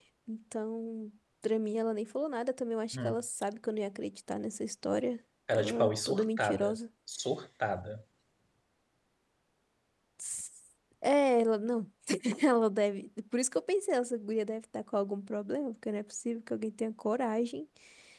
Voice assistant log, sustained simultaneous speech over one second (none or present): present